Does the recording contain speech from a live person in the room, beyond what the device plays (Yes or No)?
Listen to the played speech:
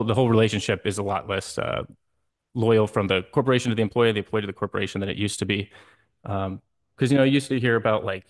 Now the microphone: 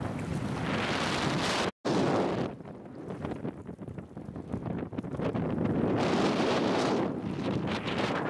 No